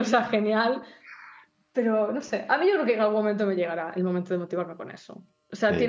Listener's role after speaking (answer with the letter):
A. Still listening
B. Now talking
B